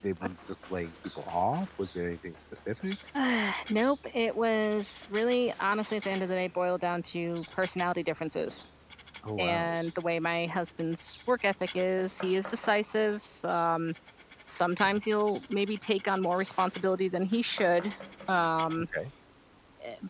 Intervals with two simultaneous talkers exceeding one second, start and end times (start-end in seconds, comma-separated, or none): none